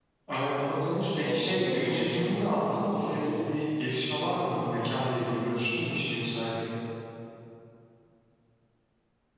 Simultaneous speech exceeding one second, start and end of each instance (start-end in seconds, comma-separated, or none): 1.2-3.4